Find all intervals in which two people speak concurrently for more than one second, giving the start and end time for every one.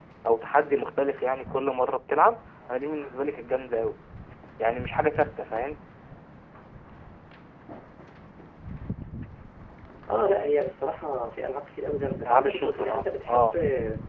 12.2-13.6

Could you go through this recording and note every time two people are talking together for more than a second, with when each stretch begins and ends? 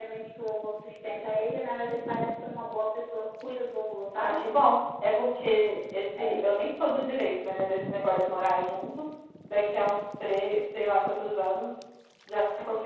none

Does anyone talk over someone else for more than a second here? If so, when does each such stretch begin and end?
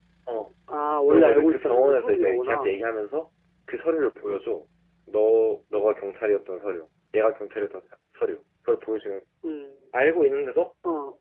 1.1-2.8

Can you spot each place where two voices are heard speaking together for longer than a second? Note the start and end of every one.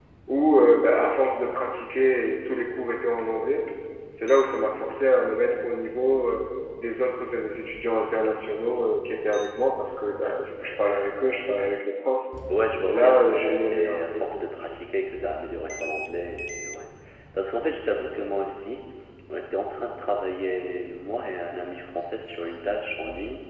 12.9-14.7

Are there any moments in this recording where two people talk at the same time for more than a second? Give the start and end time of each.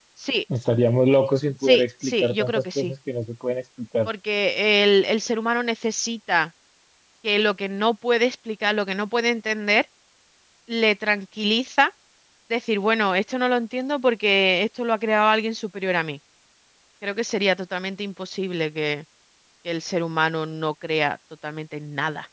1.6-2.9

